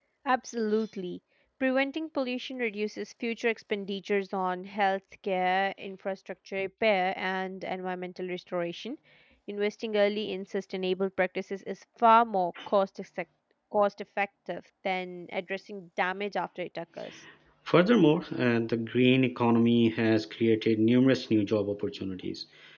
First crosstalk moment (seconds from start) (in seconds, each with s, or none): none